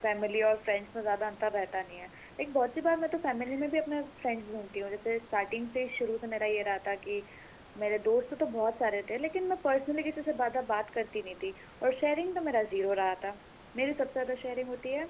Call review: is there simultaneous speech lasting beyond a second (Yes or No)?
No